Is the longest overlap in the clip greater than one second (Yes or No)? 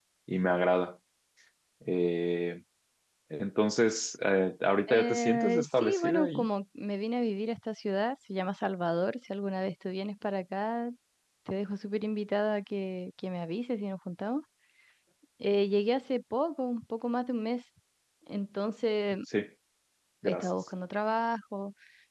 Yes